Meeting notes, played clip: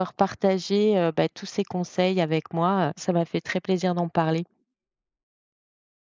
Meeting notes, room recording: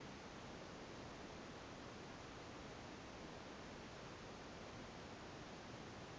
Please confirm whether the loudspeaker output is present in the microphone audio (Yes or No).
No